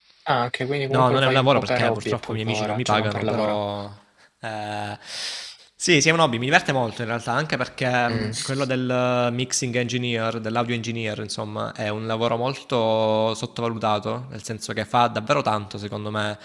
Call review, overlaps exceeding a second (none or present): present